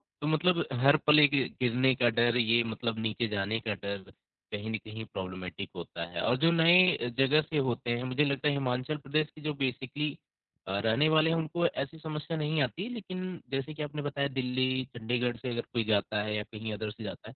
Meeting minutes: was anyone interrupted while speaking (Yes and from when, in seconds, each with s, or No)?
No